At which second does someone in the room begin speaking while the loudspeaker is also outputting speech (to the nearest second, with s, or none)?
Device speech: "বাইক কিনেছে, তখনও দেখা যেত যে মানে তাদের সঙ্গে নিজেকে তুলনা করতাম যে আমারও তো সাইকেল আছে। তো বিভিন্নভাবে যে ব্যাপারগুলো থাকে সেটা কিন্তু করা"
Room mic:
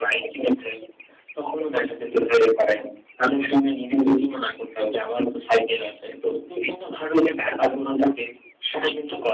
none